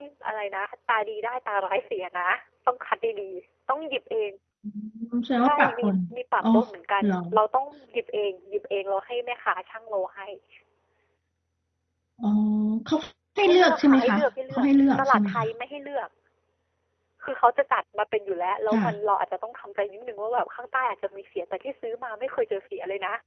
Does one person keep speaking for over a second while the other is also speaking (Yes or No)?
Yes